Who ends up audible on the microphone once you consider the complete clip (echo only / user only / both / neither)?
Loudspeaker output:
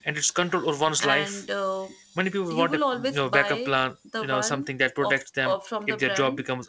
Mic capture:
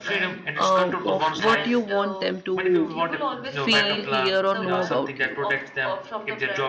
both